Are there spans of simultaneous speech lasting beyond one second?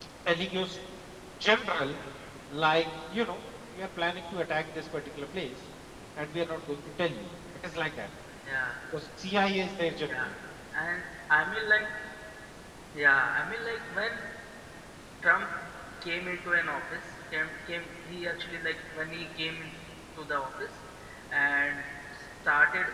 No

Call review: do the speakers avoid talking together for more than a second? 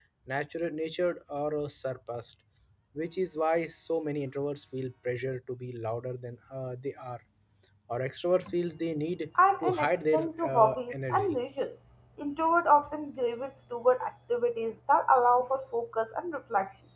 No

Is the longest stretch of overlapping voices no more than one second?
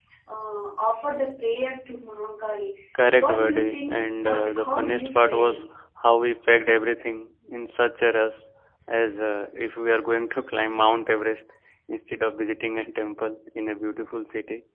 No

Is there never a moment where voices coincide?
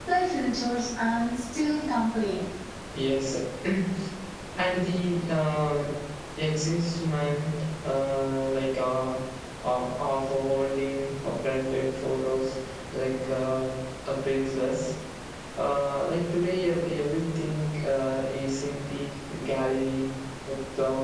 Yes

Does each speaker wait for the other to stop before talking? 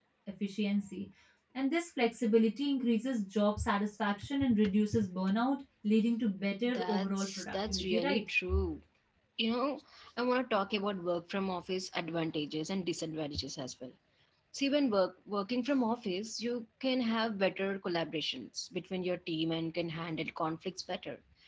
No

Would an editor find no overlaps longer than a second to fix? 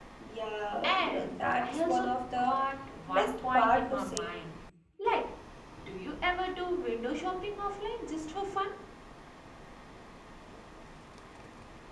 No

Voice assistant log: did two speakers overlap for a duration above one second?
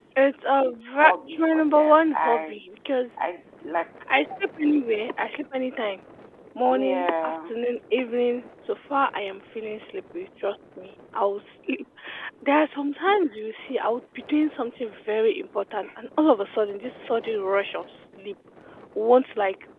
Yes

